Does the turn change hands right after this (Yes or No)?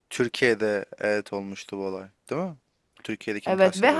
Yes